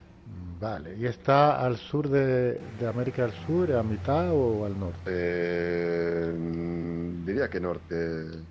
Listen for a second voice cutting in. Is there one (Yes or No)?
No